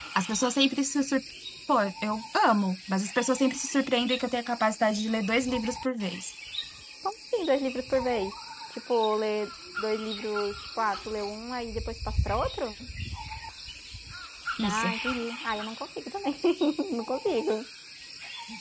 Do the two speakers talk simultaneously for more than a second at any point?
No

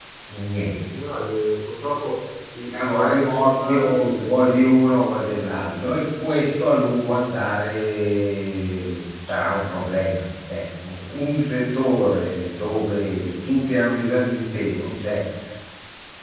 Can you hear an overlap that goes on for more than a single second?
Yes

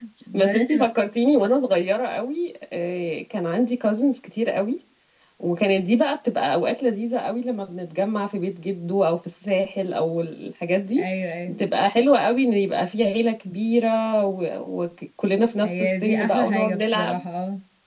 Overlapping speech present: Yes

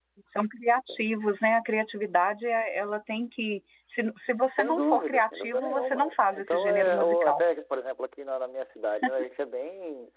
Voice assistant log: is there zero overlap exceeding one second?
No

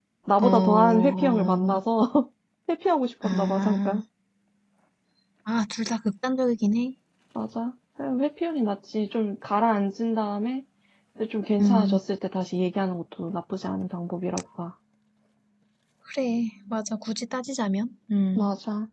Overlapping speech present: Yes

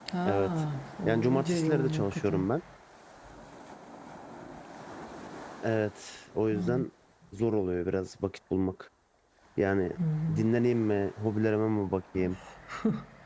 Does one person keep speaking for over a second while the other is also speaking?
Yes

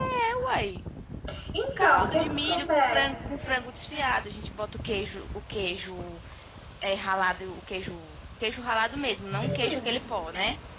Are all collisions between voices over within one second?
No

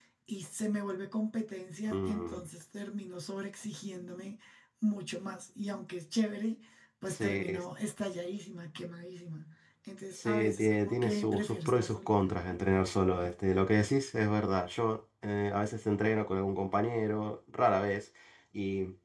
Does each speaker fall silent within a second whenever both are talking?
No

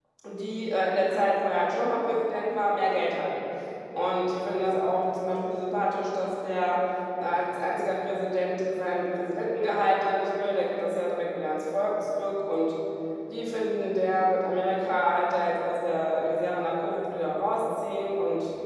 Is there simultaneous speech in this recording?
No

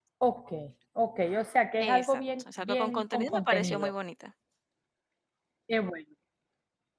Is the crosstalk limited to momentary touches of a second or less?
No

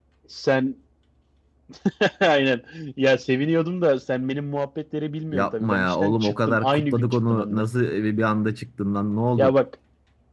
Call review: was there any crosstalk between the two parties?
Yes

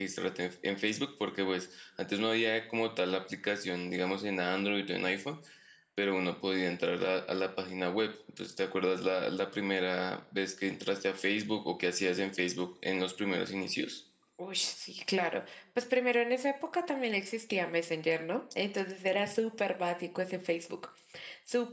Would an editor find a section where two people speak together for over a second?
No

